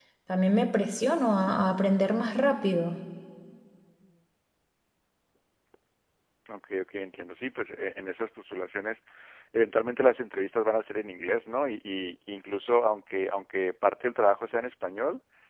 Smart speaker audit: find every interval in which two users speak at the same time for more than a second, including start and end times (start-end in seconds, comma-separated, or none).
none